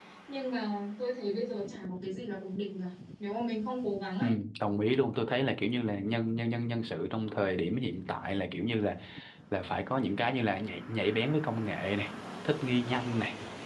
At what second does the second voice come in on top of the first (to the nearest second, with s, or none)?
none